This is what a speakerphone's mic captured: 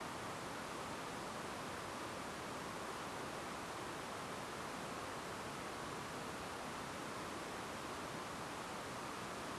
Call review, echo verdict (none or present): none